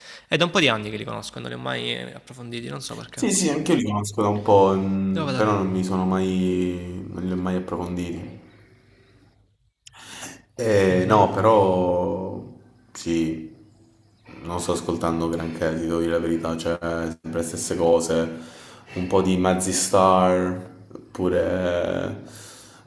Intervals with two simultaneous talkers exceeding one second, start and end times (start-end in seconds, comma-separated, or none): none